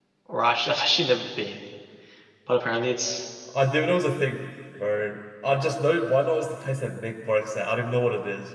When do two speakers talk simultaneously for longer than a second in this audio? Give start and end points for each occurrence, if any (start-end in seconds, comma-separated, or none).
none